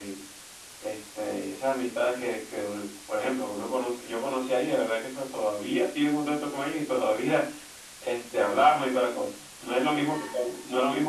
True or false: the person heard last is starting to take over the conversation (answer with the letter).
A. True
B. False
B